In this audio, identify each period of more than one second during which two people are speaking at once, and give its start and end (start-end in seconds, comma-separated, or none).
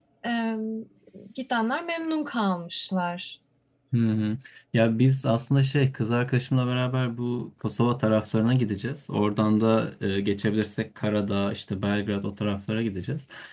none